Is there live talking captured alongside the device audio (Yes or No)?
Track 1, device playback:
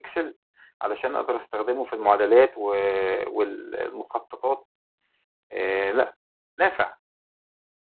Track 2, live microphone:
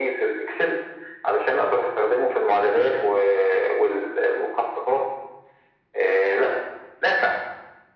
No